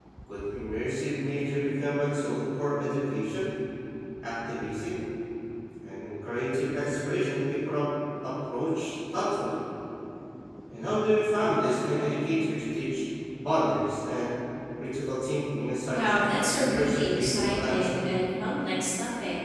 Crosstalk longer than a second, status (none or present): present